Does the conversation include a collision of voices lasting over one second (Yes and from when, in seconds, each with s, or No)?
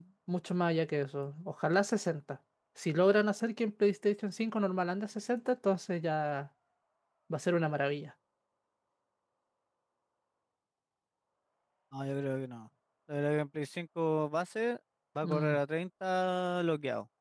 No